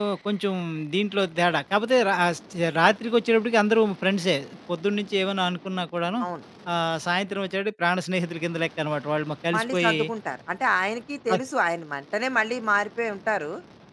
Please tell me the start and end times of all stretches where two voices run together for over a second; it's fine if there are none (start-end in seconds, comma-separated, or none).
none